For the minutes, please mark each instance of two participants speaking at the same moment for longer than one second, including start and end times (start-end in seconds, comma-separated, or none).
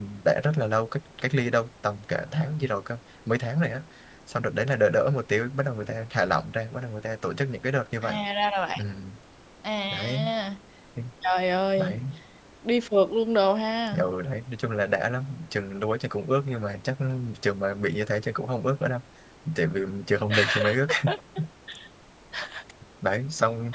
none